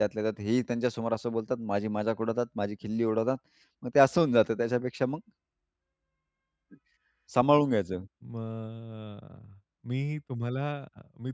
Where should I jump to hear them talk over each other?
none

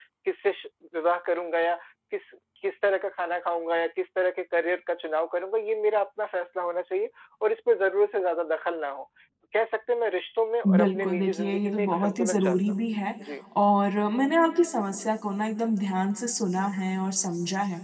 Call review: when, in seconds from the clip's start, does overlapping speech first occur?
10.6 s

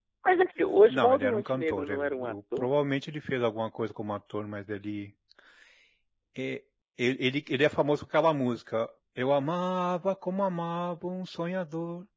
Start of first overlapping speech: 0.9 s

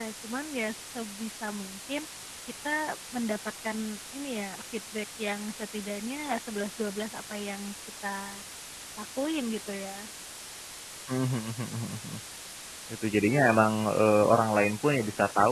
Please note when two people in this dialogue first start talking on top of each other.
none

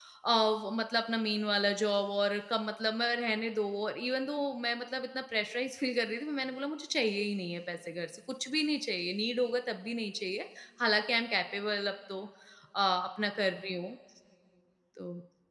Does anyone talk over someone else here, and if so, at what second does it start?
none

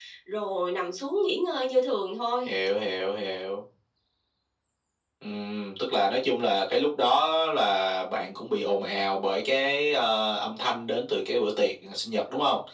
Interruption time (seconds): none

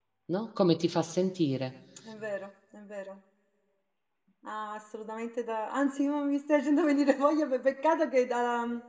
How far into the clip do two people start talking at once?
none

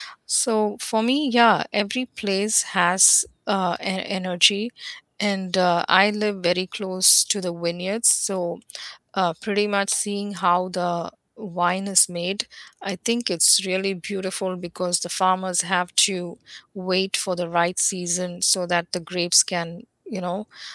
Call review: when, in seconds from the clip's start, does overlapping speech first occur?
none

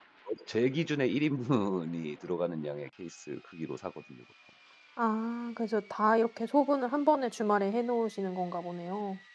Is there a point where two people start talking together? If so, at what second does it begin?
none

